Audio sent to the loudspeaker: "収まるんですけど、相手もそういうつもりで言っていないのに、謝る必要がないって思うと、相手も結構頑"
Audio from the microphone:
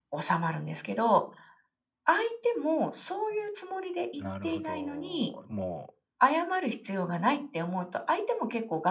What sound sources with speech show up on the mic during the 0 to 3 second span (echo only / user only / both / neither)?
echo only